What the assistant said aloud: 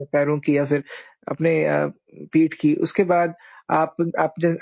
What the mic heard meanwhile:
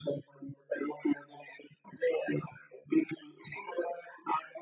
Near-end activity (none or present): none